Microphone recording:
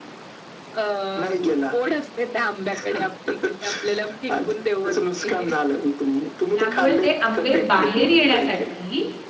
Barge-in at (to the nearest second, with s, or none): 7 s